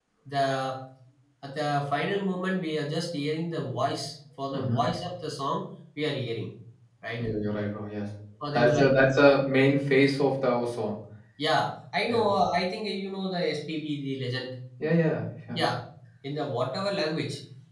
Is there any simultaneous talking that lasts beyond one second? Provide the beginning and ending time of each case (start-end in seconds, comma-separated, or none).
none